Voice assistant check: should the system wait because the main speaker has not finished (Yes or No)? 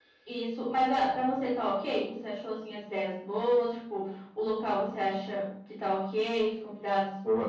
No